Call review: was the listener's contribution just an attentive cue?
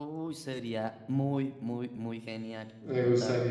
No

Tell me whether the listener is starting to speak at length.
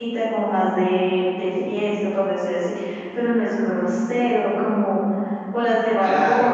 Yes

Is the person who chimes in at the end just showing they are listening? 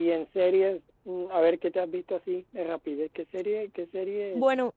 No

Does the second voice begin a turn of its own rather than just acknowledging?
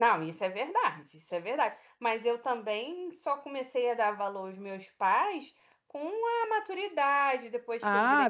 Yes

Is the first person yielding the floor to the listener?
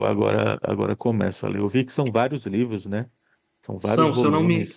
Yes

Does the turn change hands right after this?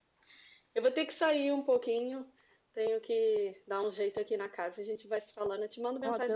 Yes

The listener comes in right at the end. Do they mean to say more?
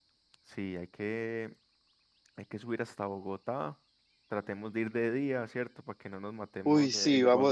Yes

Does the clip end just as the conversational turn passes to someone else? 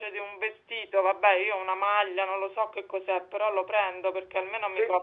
No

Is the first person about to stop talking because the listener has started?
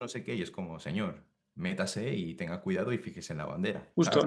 Yes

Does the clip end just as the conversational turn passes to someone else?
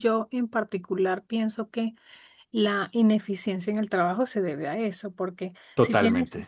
No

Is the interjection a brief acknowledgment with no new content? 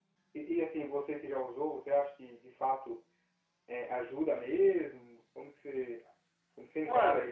No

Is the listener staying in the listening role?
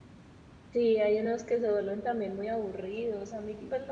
Yes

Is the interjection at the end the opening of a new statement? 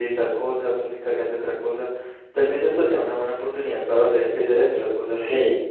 Yes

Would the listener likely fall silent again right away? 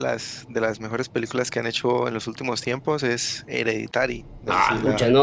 No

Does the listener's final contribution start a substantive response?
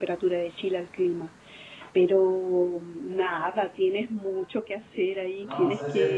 Yes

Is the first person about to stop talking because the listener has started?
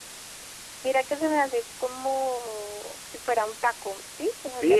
Yes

